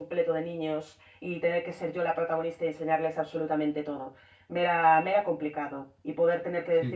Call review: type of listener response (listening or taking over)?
listening